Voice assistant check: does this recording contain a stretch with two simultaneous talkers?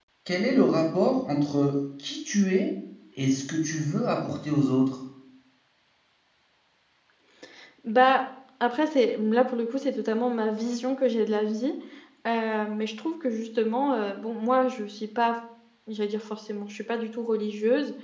No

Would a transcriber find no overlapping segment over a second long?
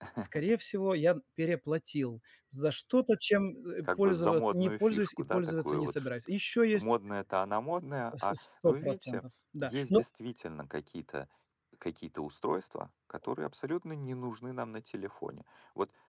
No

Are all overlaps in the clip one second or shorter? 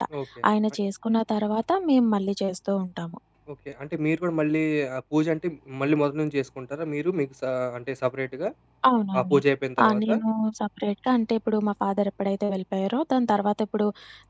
Yes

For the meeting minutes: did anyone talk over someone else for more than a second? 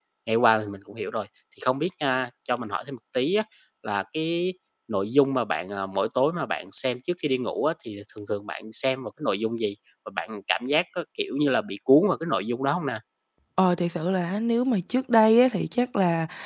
No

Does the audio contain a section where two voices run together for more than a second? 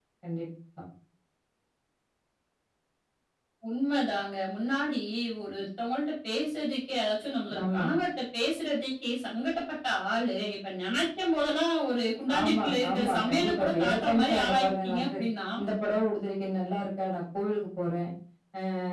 Yes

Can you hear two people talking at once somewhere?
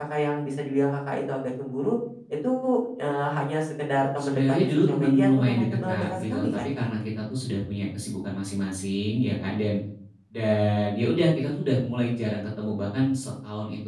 Yes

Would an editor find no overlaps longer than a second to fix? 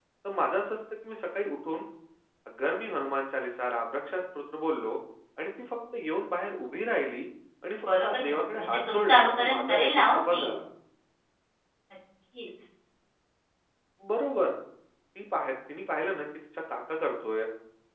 No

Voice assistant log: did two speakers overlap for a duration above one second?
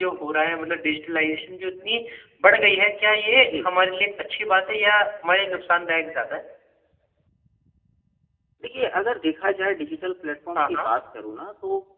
No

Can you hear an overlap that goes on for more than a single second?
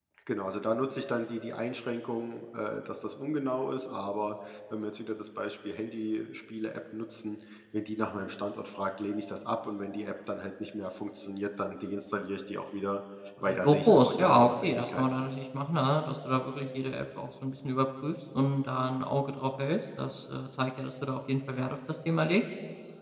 Yes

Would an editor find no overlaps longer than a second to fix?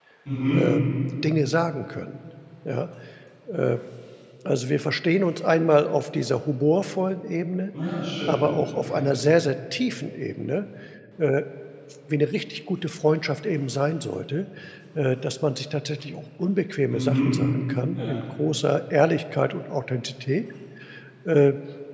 Yes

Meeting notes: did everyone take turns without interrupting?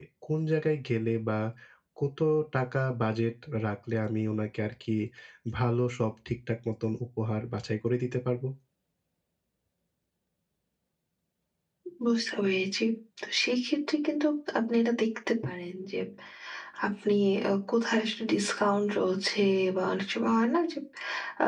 Yes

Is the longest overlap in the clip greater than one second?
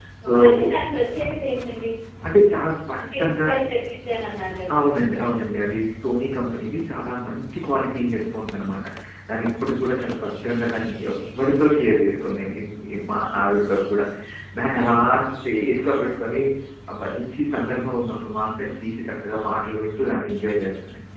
No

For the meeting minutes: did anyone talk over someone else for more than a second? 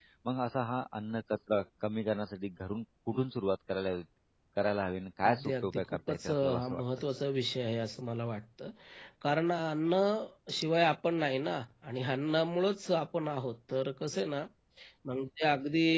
Yes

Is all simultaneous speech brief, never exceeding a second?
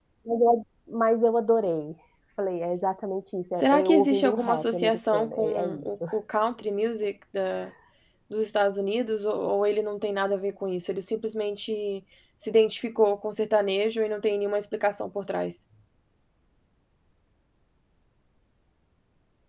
No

